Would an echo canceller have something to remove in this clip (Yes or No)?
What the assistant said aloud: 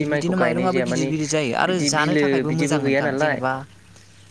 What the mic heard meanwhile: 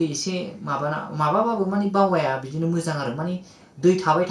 No